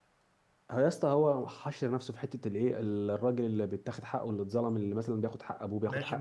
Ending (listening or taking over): taking over